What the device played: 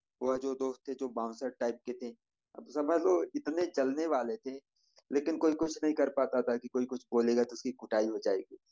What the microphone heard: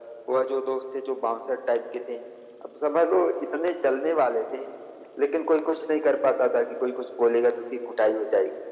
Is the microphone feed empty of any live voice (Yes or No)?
Yes